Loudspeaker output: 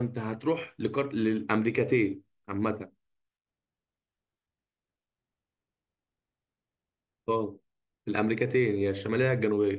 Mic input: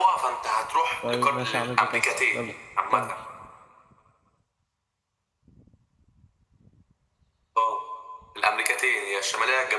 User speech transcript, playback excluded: طيب ماشي يا عم بيكاسو يلا كمل

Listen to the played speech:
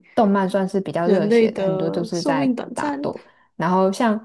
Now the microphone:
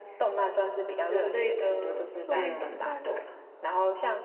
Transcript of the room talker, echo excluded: 嗯，对啊，

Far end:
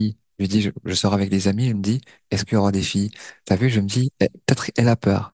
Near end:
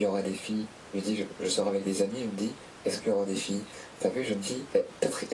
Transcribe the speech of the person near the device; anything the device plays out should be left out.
none

